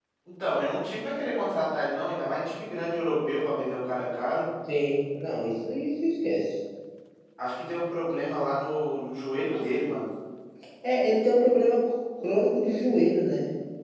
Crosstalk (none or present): none